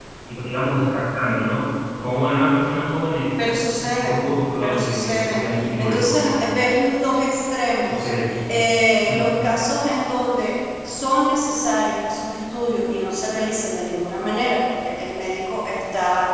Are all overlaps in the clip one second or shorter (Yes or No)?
No